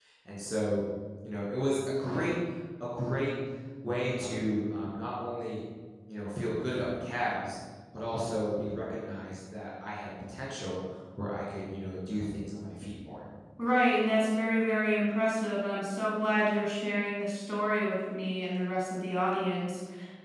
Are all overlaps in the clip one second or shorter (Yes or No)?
Yes